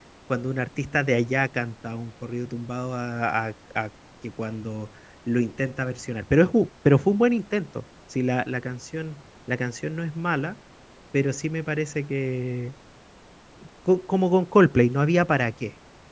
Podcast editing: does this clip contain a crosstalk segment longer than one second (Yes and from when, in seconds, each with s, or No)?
No